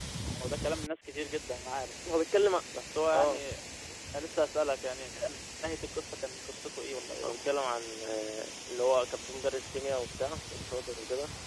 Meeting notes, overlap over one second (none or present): none